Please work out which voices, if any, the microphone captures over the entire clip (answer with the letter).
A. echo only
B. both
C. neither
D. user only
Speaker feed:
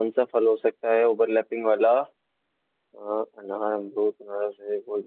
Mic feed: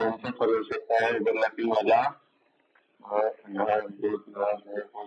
A